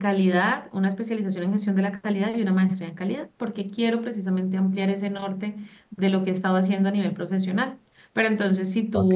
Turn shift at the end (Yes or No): No